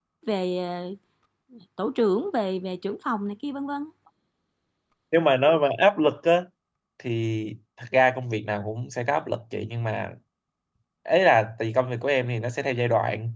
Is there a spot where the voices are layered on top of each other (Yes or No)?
No